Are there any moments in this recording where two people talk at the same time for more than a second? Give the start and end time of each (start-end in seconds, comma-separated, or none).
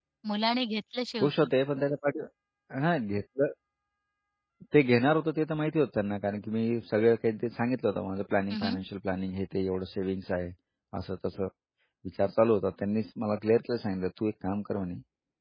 none